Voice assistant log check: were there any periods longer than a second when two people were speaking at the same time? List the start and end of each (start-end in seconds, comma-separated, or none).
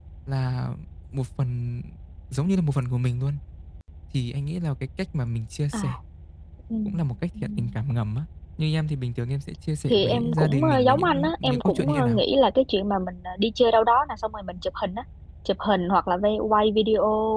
9.9-12.2